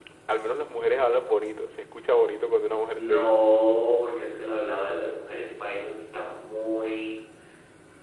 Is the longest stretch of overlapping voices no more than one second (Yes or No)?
Yes